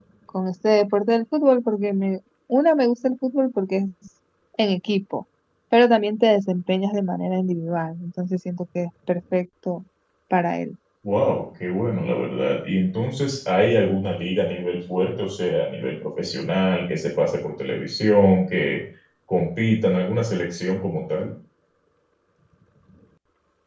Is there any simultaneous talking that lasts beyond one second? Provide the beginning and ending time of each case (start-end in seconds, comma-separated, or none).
none